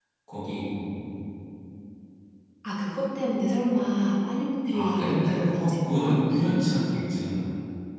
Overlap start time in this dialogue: 5 s

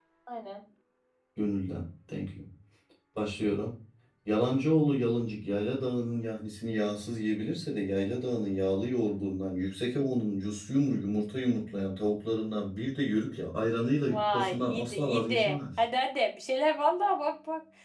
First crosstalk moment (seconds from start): 14 s

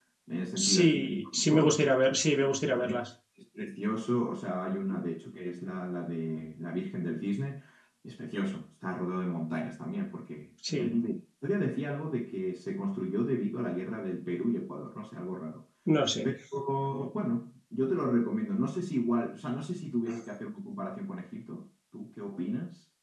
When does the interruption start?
1 s

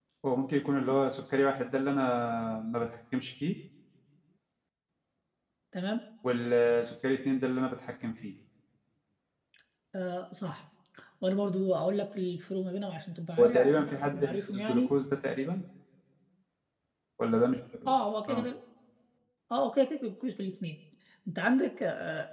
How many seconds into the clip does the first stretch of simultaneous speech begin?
13 s

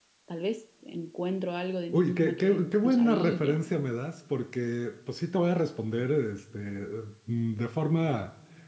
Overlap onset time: 2 s

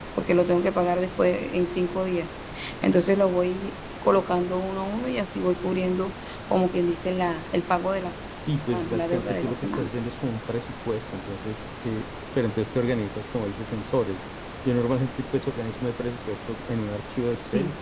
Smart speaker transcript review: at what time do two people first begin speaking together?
8 s

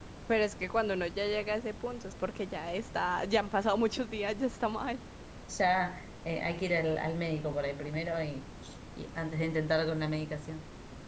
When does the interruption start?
none

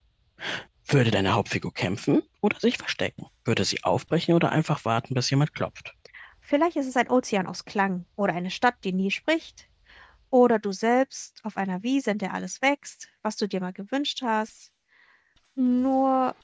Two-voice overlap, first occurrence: none

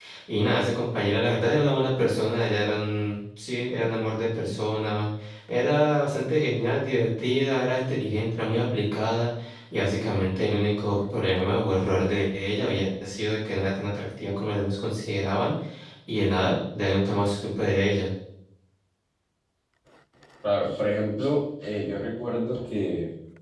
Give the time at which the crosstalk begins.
none

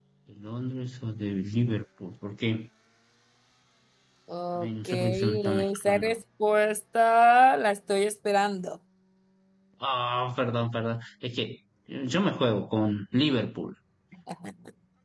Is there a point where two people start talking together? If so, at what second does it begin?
5 s

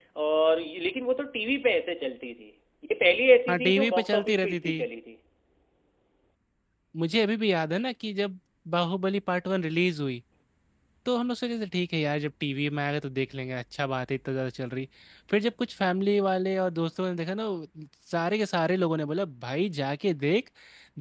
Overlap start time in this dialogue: 3 s

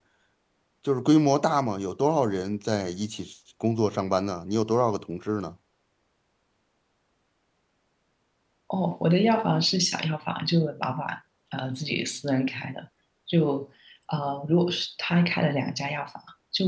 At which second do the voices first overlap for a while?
none

